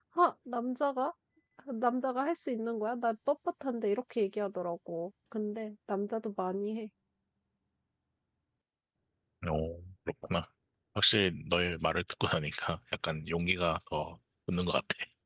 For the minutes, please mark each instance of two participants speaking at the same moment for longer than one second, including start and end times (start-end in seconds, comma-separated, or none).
none